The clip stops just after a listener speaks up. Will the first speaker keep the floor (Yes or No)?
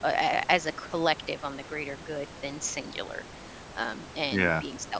Yes